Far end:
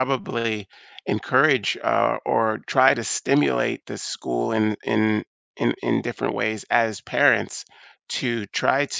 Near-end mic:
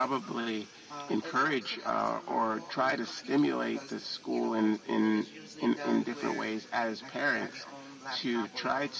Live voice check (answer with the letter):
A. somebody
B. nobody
A